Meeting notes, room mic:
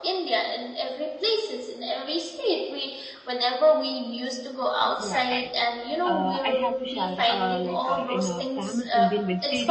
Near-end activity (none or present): present